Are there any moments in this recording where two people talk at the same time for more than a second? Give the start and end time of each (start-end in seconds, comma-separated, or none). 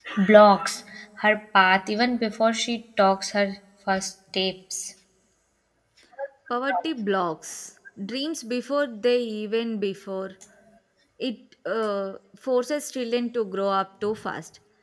none